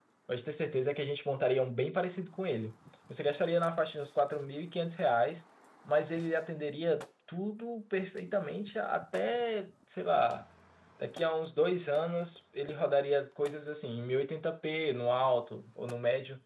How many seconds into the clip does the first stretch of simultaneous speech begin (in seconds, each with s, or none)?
none